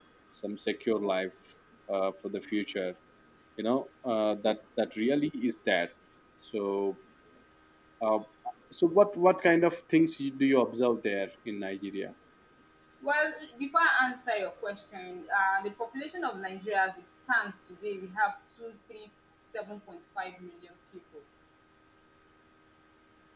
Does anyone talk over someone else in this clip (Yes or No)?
No